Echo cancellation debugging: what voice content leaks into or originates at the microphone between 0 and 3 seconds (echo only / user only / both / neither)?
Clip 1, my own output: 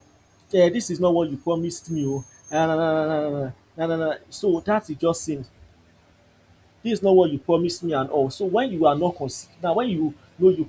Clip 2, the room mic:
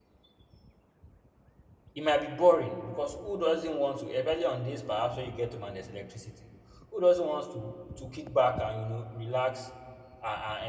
user only